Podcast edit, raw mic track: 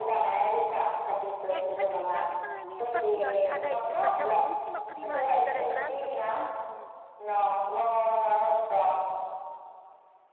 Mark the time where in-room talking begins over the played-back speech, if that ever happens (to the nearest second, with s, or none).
2 s